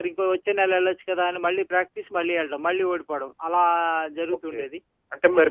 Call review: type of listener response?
taking over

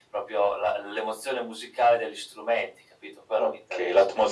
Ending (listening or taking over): taking over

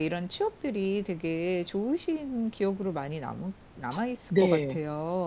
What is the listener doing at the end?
taking over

